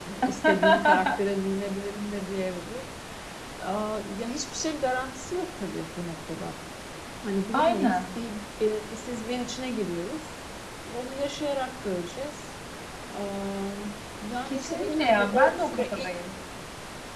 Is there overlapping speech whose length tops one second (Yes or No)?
Yes